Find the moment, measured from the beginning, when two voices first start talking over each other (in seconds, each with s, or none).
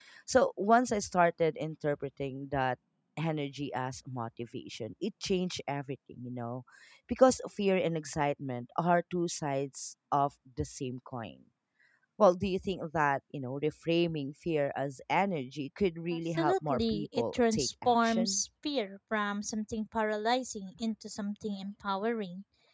16.3 s